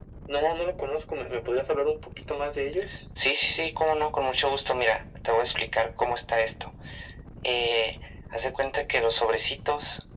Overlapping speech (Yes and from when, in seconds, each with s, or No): No